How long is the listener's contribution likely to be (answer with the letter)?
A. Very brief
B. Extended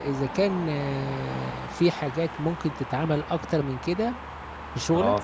B